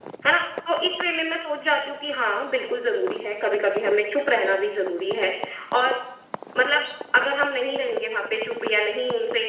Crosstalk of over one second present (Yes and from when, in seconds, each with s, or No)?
No